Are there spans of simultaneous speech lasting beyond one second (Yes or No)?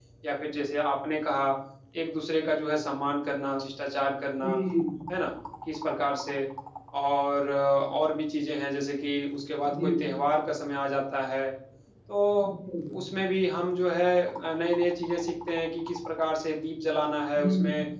No